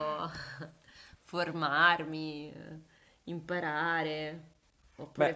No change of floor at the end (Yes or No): Yes